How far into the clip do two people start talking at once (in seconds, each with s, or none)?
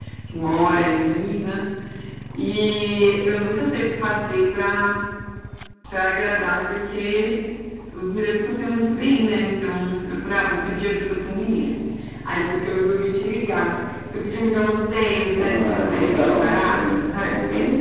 15.3 s